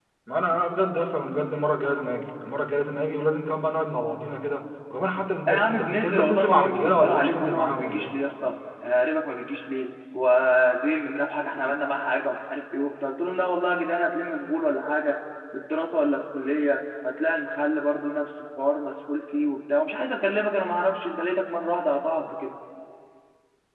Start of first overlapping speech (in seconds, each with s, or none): 5.5 s